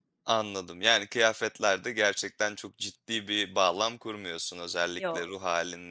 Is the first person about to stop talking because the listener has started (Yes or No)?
No